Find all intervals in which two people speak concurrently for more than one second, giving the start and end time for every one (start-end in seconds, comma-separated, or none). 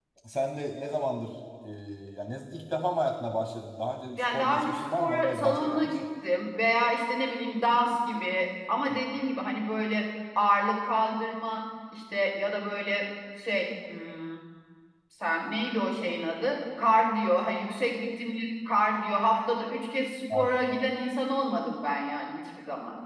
4.2-6.0